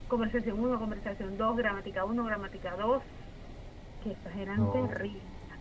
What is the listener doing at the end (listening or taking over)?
listening